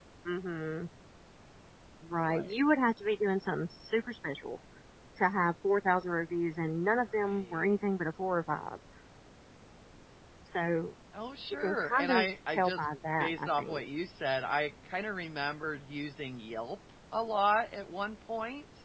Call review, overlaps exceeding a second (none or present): present